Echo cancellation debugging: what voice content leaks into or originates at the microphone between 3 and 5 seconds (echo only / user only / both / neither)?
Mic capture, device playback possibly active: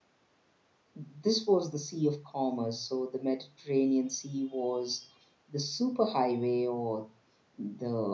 user only